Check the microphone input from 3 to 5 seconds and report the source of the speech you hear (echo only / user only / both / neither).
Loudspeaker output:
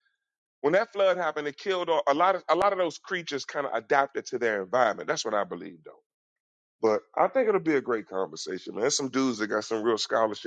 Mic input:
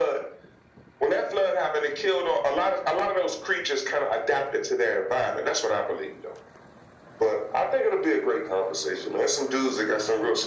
echo only